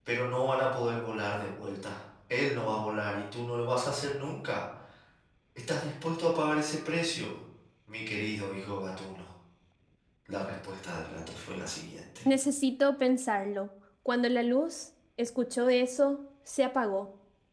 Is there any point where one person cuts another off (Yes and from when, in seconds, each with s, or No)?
No